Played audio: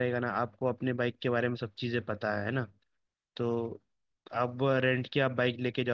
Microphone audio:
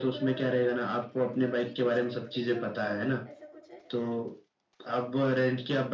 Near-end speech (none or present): present